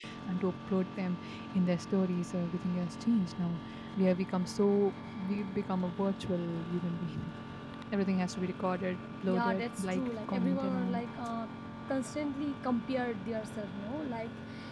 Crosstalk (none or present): present